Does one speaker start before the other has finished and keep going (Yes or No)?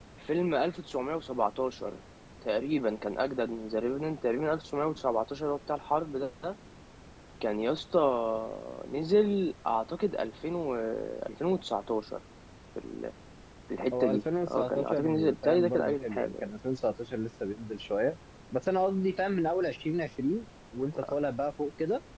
Yes